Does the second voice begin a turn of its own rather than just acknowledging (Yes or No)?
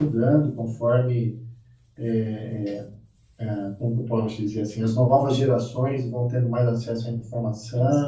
No